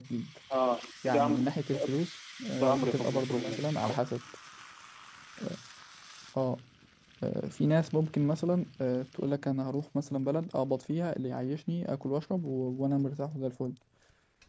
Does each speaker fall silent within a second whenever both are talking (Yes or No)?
No